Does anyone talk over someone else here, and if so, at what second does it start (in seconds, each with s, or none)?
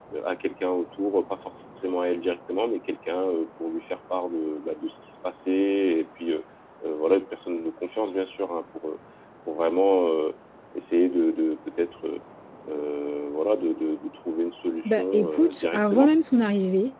14.8 s